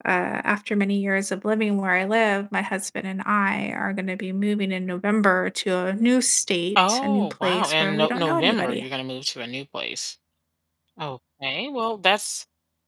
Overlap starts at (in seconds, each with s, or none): 6.8 s